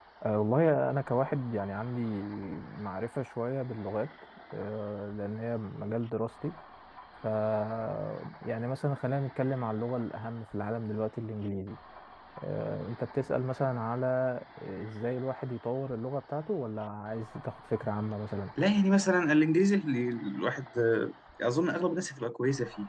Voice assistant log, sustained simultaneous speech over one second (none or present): none